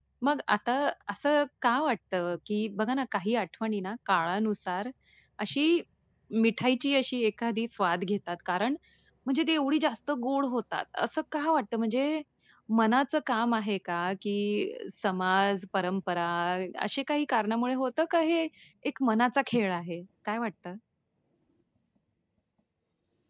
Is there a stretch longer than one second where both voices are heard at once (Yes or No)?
No